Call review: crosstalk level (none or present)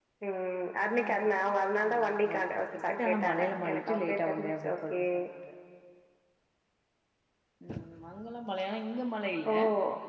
present